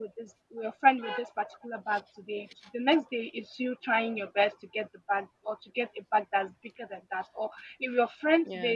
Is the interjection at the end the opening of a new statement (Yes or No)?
No